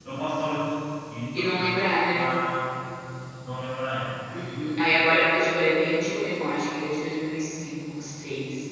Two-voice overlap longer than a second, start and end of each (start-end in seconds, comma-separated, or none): none